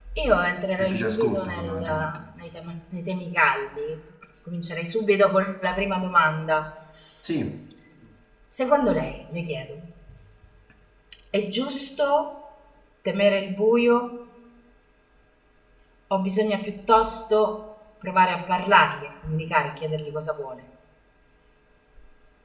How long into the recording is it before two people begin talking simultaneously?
1 s

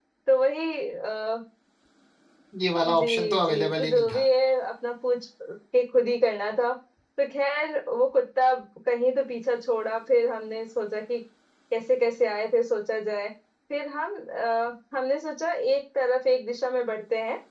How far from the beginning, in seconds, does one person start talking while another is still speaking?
3 s

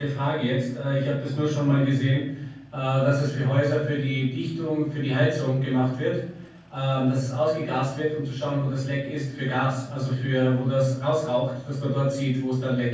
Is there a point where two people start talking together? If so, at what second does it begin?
none

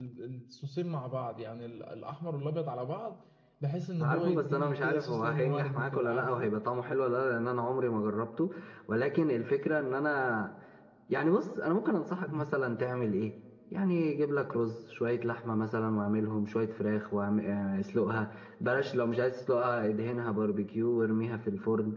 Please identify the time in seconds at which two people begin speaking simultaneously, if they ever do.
4 s

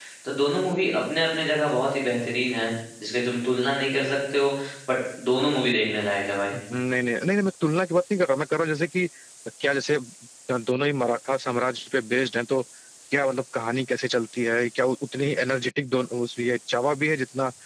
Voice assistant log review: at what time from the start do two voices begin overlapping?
none

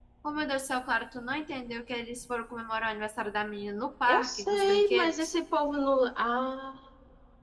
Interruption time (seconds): 4 s

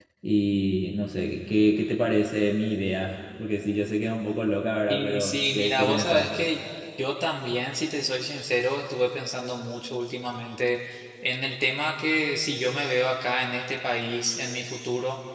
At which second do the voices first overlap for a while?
5 s

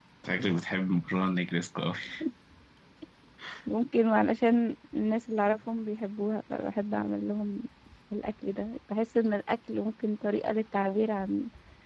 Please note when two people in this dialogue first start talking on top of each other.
none

